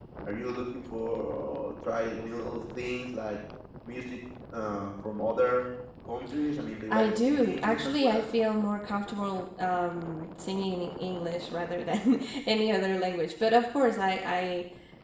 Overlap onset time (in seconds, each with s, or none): 6.9 s